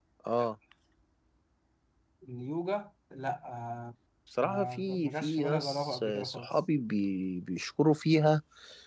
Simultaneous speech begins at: 4.4 s

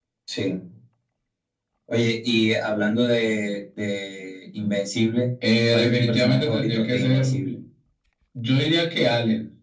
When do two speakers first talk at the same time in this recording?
5.7 s

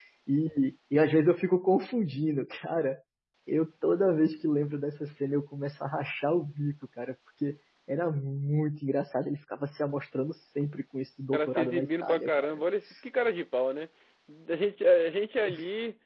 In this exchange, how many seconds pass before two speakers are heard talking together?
11.3 s

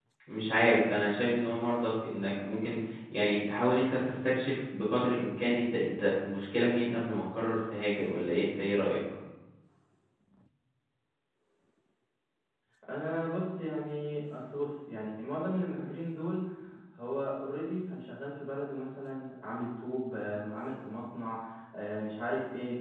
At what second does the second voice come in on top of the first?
none

